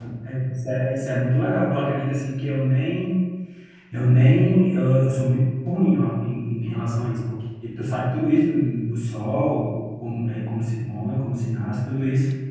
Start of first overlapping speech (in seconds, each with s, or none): none